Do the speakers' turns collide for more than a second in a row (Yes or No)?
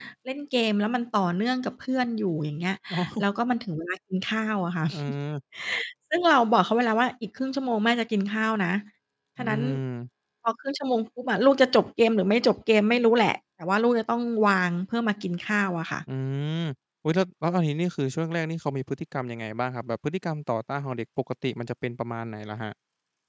No